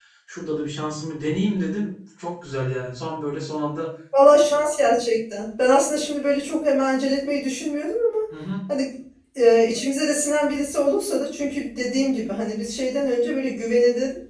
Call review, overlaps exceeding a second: none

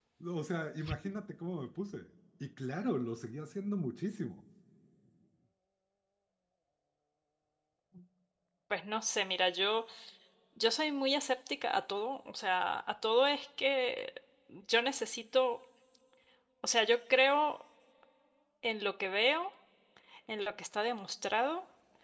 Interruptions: none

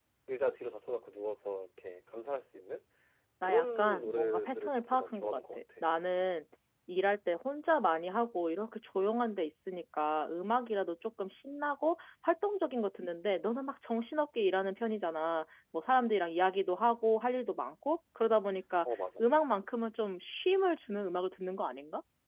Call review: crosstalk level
present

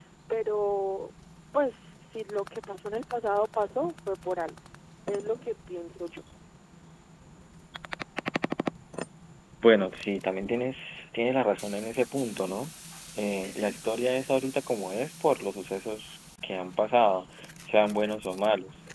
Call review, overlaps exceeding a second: none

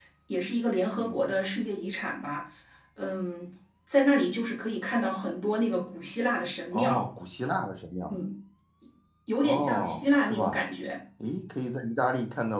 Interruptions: present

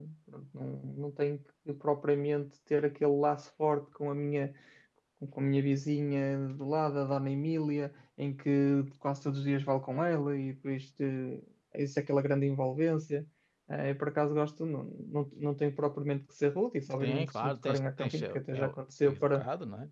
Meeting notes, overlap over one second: present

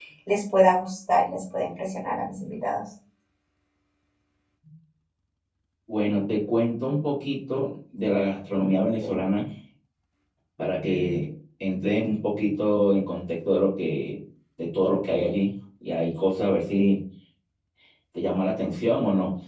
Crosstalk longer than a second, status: none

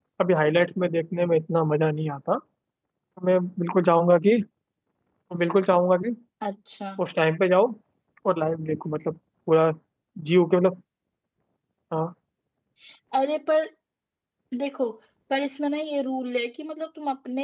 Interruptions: none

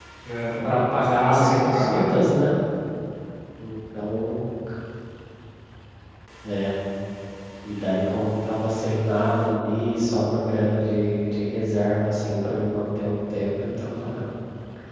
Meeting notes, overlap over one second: present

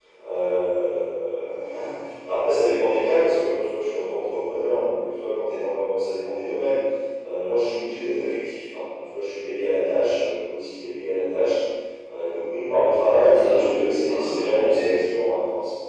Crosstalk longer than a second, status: present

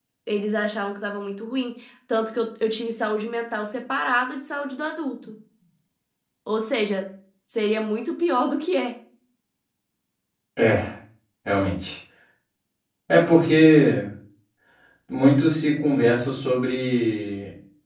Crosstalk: none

